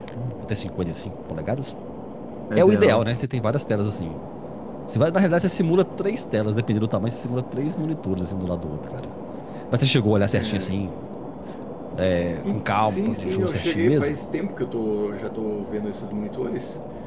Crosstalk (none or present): present